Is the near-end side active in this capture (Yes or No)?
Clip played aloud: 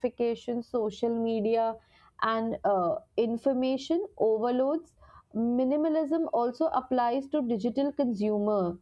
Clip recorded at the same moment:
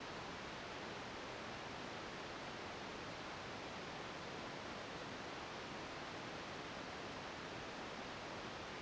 No